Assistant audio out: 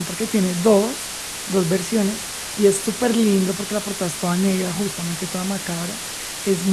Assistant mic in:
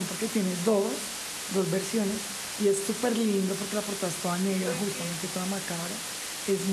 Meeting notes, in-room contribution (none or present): present